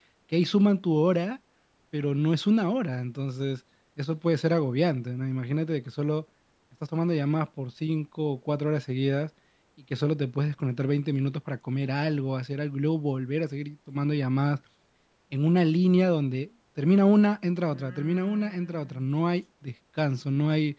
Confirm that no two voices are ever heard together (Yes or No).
No